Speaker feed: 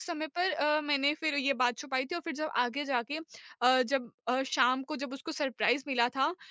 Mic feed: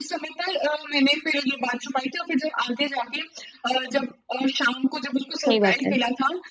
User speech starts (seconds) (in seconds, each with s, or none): 5.4 s